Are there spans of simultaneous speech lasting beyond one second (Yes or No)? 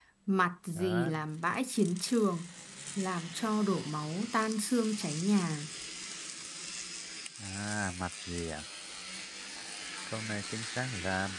No